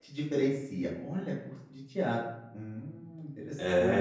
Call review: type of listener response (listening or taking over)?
taking over